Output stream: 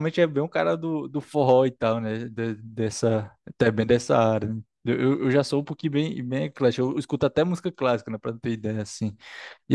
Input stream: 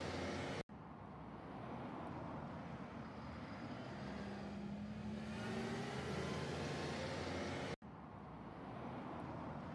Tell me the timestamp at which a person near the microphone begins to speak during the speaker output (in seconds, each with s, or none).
none